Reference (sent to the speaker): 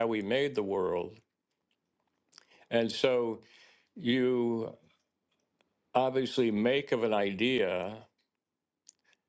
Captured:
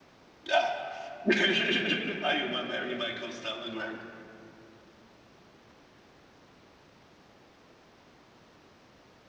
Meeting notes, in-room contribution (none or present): present